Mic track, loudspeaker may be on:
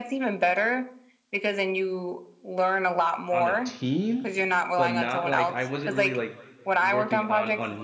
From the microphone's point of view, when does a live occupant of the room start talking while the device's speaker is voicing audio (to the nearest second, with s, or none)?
3 s